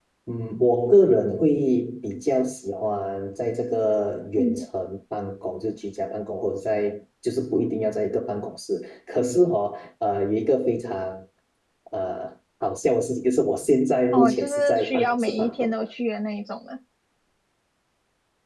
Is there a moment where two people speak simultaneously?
Yes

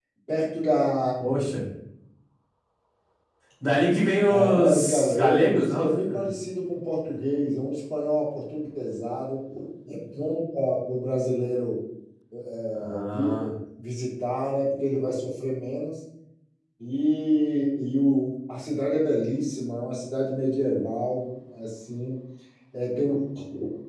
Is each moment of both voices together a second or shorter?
No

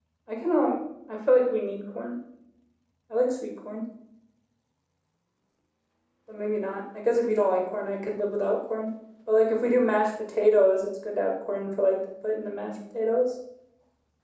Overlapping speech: No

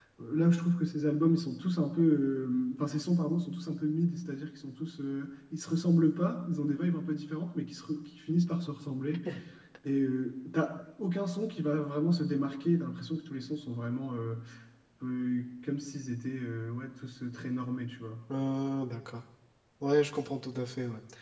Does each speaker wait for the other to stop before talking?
Yes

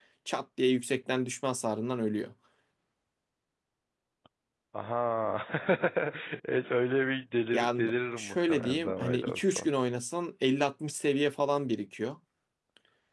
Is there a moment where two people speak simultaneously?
Yes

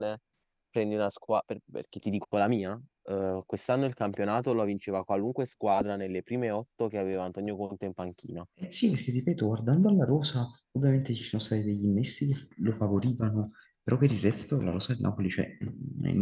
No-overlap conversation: Yes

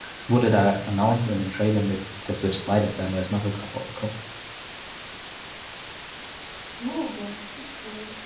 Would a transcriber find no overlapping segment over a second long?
Yes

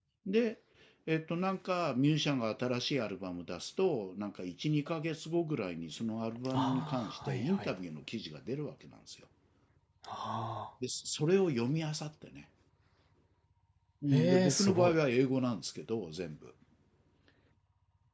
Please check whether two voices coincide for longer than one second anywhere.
Yes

